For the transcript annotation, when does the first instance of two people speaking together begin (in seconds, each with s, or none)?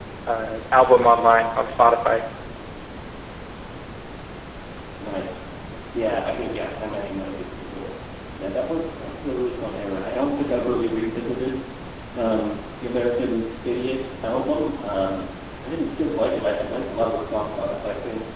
none